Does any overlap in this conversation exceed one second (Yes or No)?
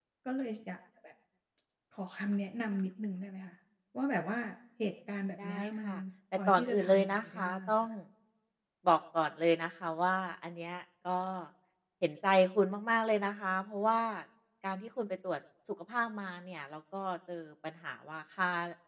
Yes